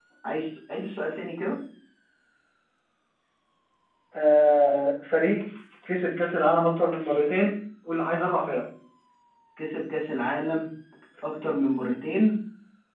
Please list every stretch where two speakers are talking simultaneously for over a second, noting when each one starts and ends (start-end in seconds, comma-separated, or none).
none